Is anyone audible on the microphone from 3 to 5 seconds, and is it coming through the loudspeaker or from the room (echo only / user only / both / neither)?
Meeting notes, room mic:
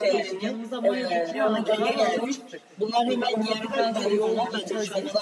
both